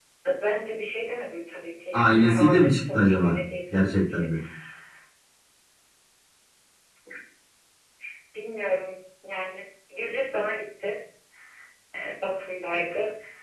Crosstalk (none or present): present